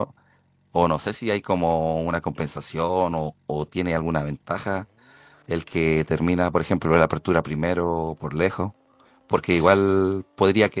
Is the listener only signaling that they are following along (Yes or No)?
Yes